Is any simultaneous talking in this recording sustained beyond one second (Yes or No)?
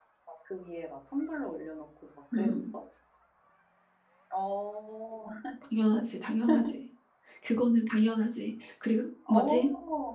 No